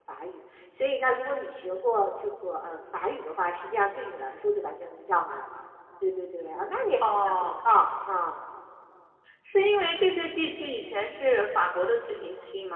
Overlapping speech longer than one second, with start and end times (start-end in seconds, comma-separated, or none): none